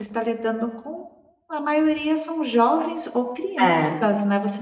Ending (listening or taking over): listening